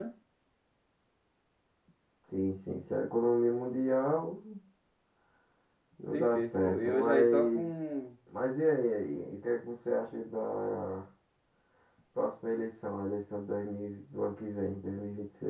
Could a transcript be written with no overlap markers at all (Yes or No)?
No